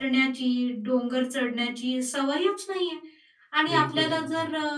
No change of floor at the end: Yes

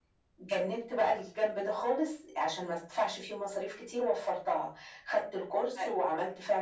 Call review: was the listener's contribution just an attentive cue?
Yes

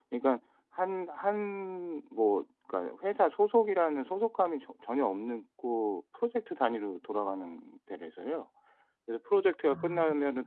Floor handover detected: No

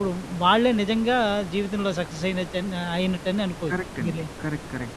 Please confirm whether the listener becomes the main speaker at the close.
Yes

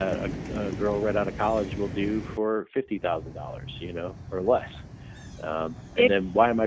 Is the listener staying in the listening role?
Yes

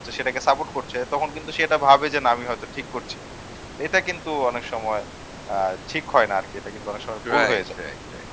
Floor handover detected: Yes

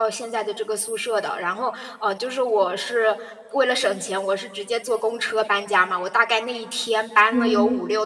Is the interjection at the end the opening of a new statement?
No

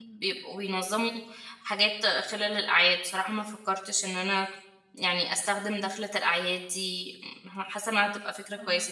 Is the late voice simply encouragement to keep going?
No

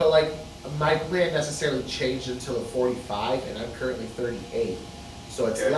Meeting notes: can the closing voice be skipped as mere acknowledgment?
Yes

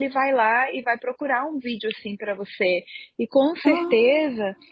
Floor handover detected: No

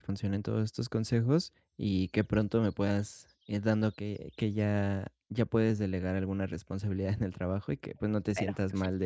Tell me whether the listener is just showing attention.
Yes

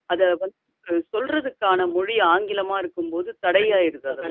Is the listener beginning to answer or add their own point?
Yes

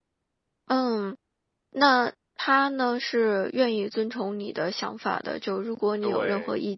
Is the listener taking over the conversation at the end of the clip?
No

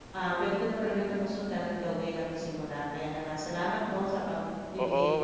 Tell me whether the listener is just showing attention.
No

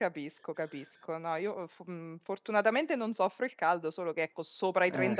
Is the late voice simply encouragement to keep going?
Yes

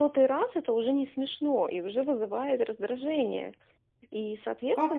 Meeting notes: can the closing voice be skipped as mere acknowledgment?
No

